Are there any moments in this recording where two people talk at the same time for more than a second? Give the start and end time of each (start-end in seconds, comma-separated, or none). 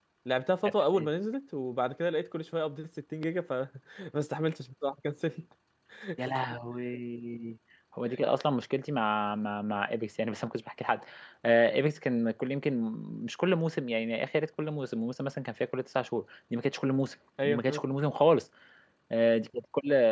none